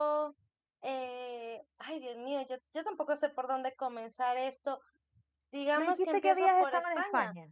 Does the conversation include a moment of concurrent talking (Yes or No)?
Yes